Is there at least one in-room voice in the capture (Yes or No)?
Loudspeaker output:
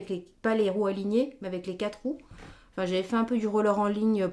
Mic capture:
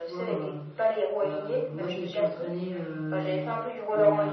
Yes